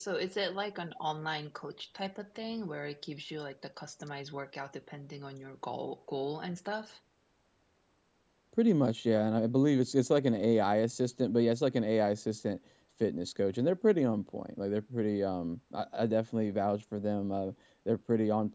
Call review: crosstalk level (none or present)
none